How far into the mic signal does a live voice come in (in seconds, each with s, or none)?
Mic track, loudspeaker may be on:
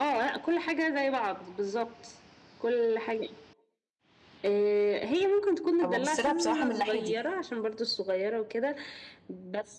5.8 s